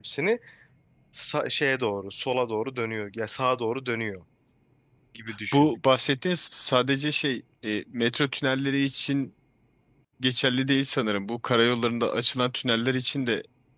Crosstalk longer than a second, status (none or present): none